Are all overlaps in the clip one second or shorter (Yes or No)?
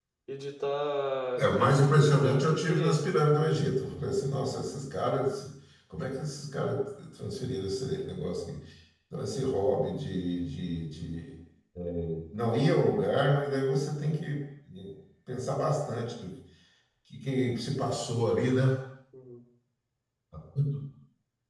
No